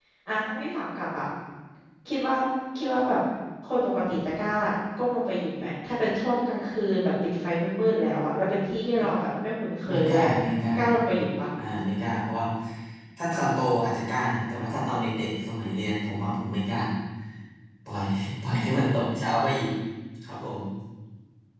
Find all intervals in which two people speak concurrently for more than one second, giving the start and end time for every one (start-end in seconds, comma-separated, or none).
none